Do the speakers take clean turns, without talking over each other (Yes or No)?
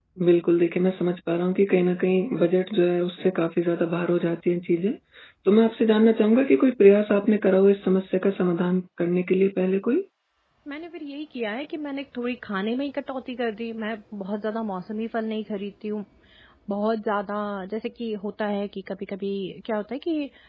Yes